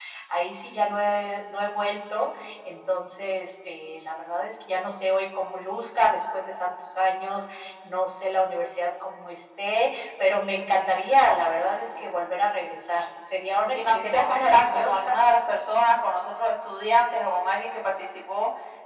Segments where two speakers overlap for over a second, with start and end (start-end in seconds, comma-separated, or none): 13.8-15.2